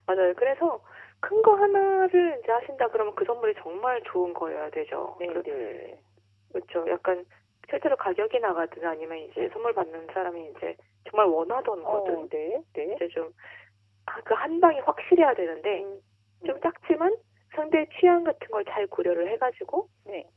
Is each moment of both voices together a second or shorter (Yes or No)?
Yes